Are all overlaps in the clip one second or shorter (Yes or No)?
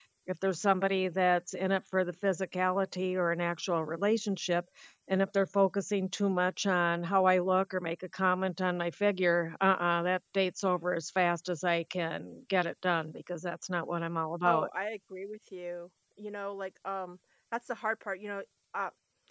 Yes